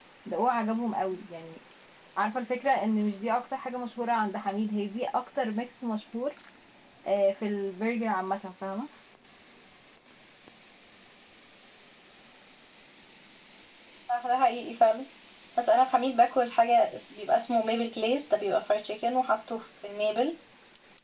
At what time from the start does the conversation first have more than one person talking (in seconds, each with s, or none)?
none